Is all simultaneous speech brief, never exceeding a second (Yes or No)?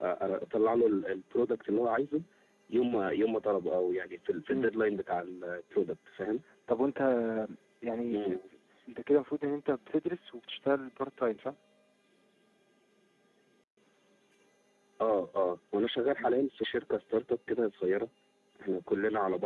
Yes